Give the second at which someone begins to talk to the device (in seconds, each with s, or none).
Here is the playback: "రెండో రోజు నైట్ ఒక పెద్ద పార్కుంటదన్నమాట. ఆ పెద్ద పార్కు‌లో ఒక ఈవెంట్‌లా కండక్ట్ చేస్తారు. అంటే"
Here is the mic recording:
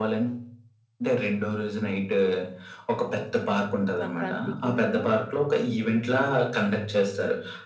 4.0 s